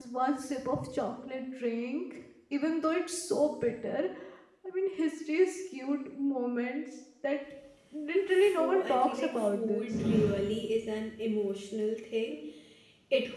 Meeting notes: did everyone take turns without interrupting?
No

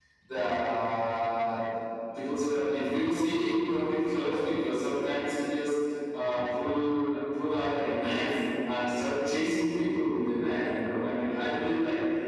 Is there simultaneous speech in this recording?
No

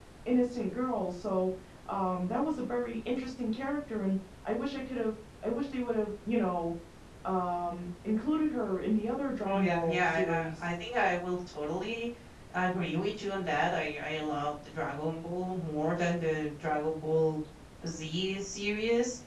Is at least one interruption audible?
Yes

